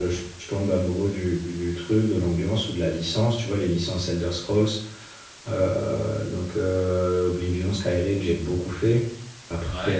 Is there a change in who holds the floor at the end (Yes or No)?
No